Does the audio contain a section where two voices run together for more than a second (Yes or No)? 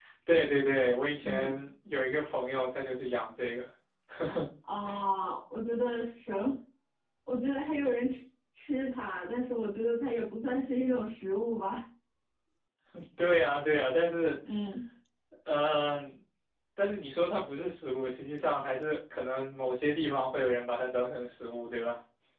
No